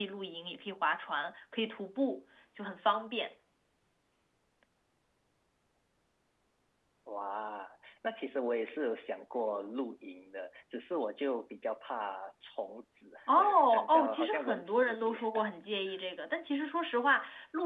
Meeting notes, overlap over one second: present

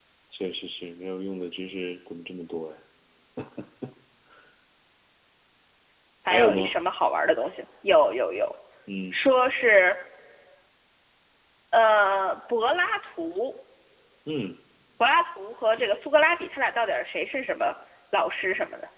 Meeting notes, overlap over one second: none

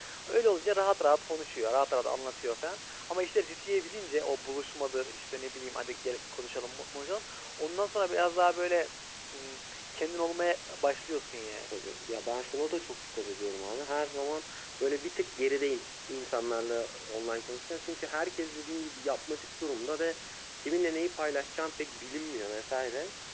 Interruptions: none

